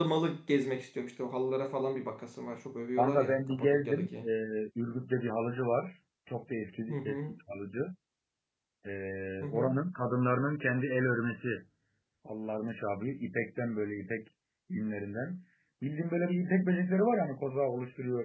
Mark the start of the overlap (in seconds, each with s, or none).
3.0 s